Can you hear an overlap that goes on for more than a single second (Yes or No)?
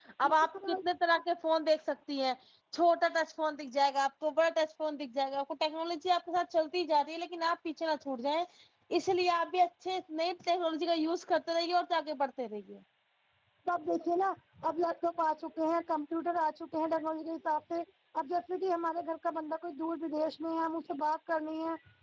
No